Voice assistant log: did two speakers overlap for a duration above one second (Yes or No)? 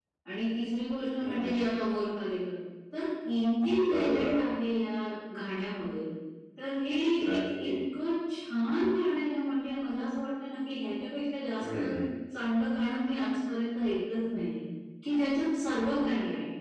No